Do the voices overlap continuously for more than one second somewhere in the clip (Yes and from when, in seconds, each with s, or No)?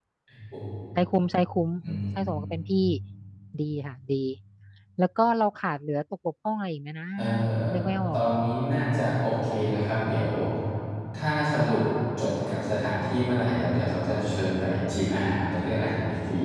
No